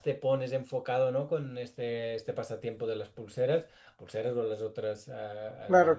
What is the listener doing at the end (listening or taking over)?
taking over